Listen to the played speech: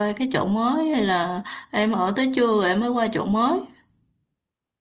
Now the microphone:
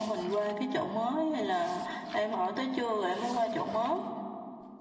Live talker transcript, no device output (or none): none